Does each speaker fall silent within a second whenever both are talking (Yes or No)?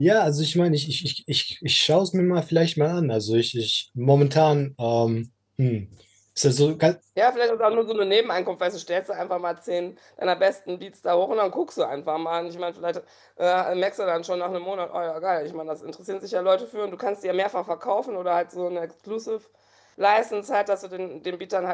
Yes